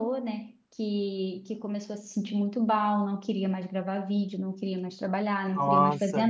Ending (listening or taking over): listening